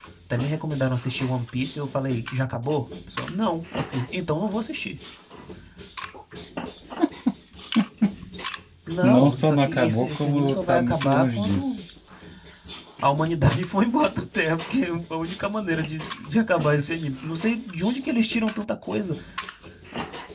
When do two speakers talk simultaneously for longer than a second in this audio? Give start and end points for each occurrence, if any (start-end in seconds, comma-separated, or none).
9.0-11.8